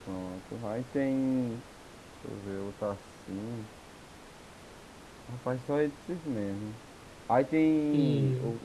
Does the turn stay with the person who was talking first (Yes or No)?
Yes